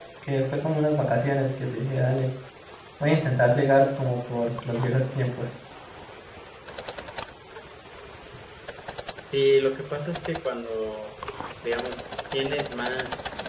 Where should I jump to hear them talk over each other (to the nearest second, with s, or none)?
none